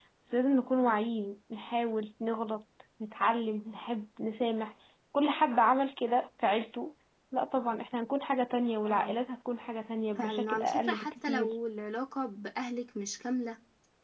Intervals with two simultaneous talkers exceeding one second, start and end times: 10.2-11.5

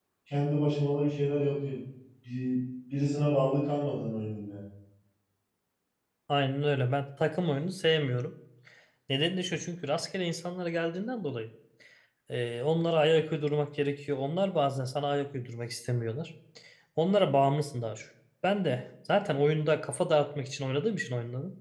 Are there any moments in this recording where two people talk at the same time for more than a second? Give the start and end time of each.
none

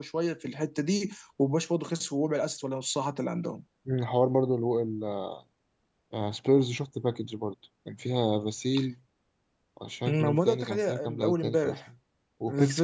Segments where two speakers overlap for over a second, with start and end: 10.1-11.8

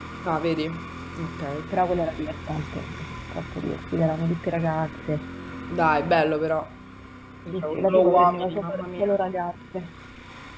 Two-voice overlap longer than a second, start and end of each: 7.5-9.1

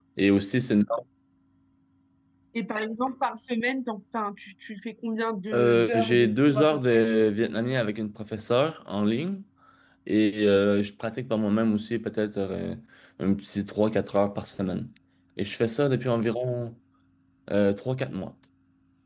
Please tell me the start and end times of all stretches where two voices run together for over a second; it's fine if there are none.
5.5-7.0

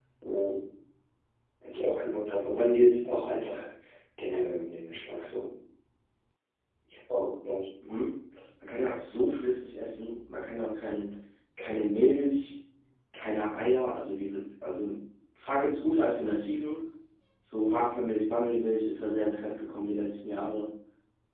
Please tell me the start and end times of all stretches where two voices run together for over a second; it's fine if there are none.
none

